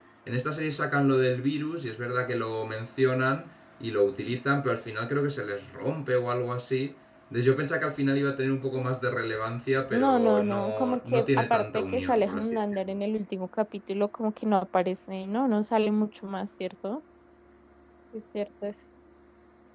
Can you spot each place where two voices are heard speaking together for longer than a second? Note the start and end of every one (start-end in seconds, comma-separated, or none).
9.9-13.0